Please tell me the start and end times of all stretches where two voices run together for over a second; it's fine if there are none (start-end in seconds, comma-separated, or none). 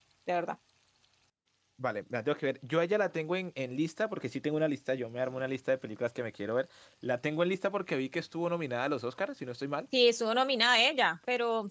none